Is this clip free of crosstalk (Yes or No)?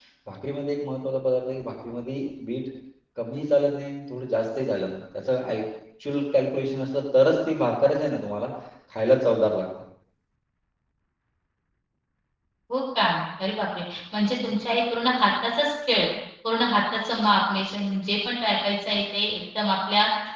Yes